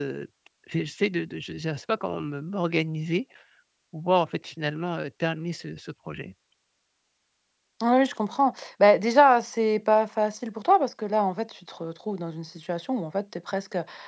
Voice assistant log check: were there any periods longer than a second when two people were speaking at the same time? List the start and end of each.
none

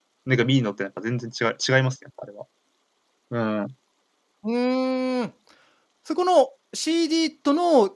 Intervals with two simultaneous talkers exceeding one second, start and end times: none

